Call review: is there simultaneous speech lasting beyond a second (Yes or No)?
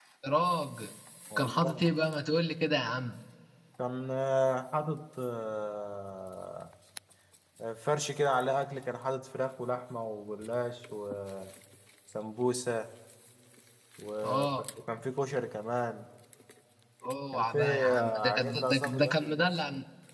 Yes